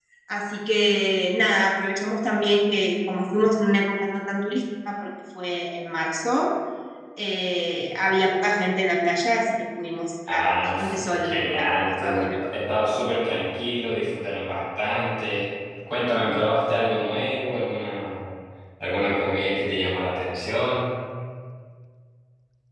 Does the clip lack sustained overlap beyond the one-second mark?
No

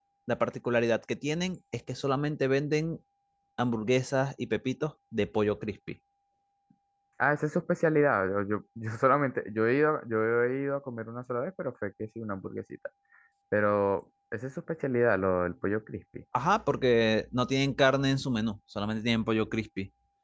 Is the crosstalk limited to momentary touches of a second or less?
Yes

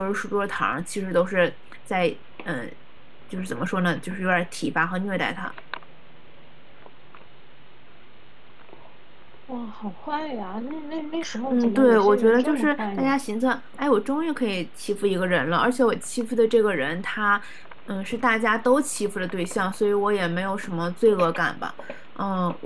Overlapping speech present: Yes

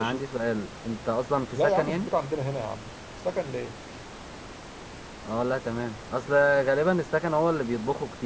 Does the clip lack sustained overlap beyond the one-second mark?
Yes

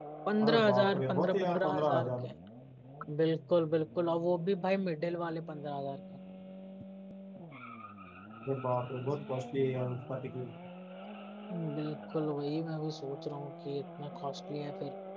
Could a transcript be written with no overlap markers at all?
No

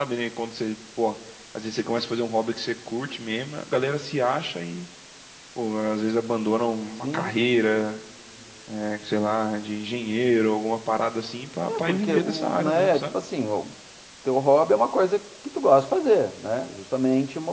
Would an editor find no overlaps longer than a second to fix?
No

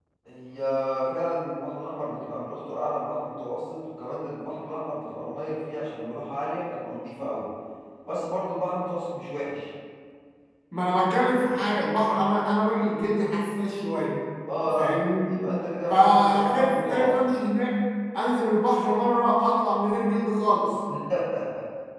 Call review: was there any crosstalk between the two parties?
Yes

